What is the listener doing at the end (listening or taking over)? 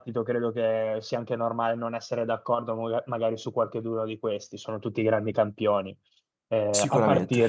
listening